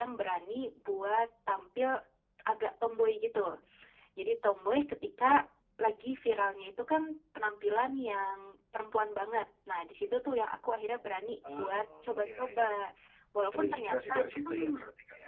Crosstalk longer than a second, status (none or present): present